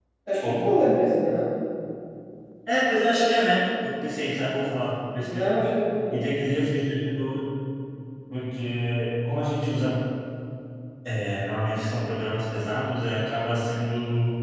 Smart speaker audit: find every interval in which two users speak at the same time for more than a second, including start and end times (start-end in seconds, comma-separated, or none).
none